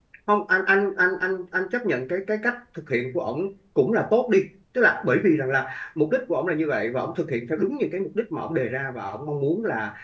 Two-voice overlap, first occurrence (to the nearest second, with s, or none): none